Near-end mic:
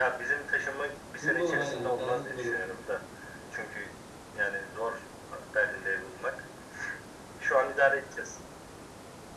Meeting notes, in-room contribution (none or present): present